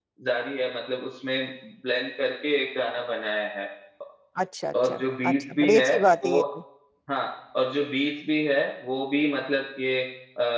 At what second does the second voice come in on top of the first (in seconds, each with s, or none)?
4.7 s